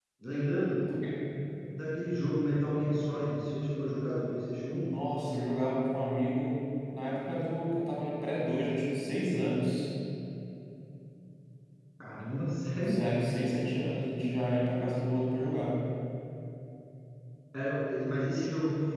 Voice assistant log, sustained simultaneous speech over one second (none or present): none